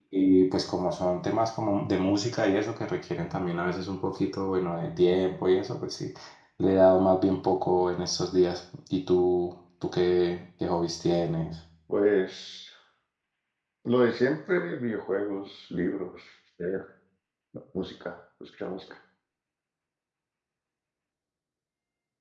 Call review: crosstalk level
none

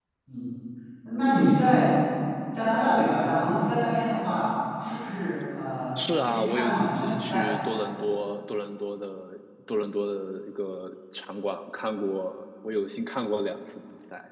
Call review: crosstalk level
present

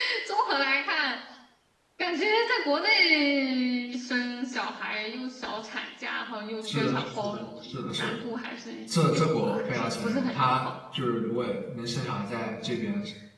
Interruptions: present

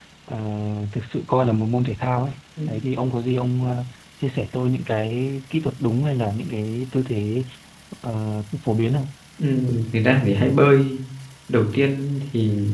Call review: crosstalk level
none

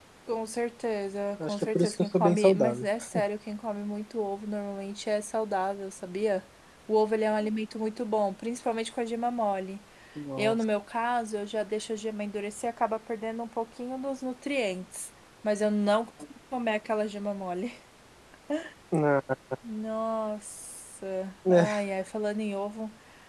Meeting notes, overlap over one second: present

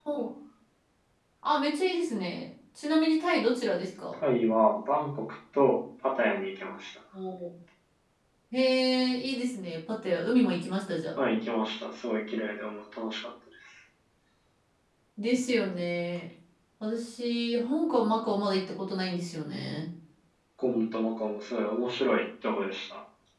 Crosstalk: none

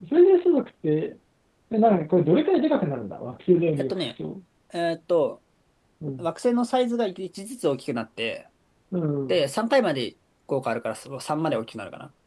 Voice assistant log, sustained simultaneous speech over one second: none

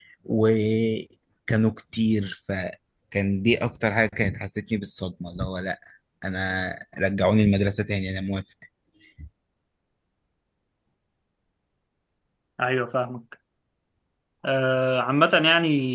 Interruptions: none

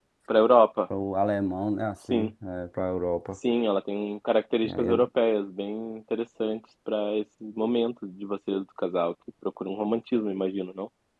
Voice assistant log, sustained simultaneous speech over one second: none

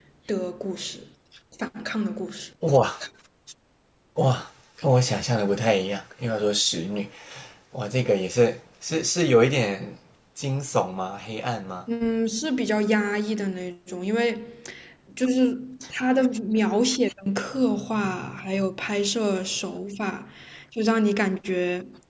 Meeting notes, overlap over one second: none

